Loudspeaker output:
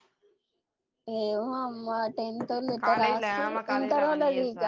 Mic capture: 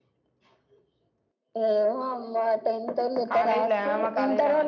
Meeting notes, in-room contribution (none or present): none